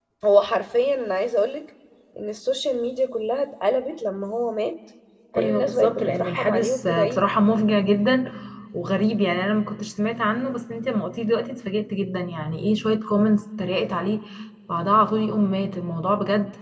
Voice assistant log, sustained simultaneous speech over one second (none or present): present